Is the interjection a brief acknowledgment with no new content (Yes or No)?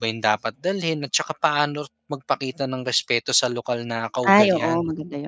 No